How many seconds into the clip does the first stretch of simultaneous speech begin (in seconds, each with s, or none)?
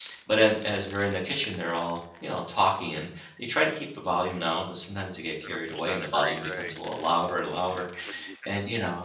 5.4 s